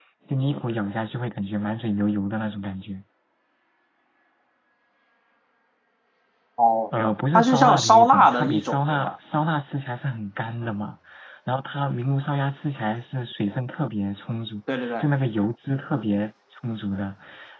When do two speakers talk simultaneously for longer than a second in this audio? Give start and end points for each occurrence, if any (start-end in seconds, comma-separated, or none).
6.9-9.1